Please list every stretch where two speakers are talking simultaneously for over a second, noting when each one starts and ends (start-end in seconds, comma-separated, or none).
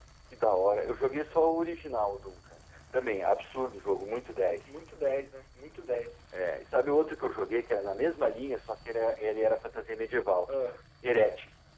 none